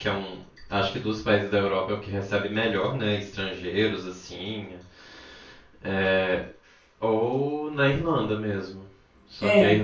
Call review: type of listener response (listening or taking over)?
listening